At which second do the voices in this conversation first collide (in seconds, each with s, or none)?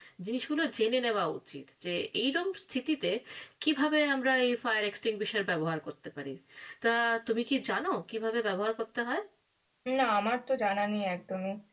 none